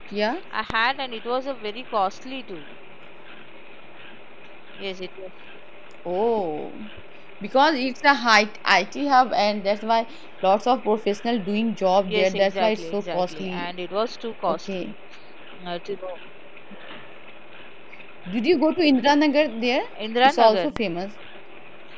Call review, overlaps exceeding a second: present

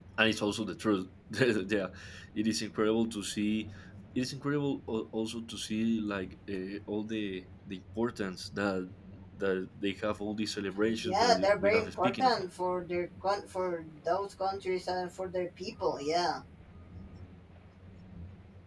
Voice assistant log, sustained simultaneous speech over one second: present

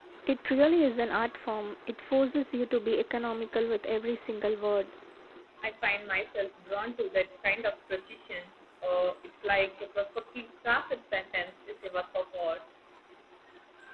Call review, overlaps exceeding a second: none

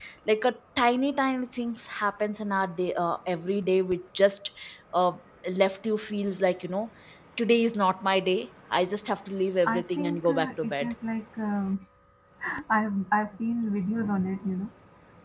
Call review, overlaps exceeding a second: present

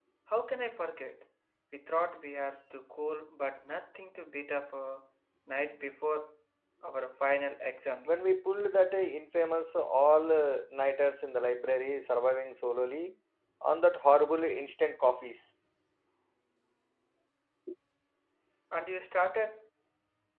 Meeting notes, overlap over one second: none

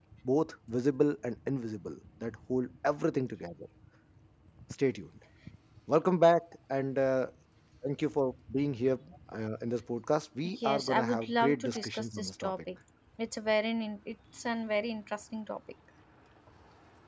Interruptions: present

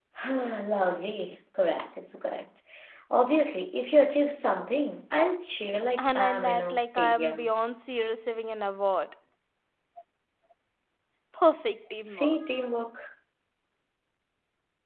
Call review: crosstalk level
present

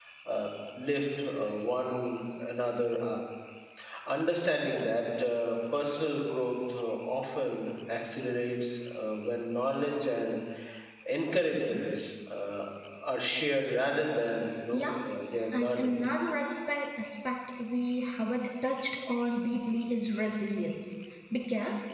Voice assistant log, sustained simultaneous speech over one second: none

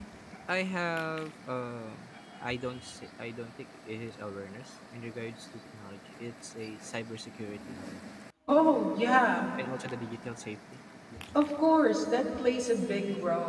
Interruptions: none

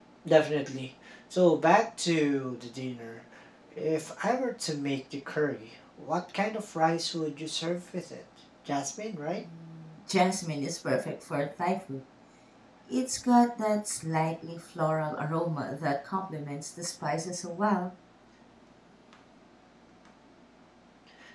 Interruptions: none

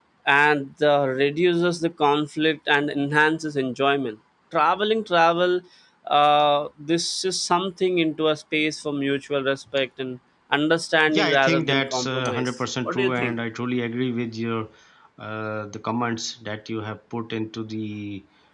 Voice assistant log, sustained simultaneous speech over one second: present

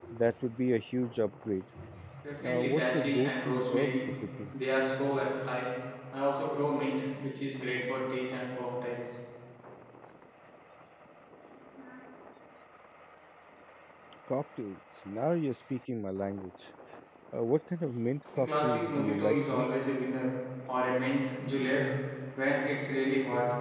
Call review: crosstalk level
present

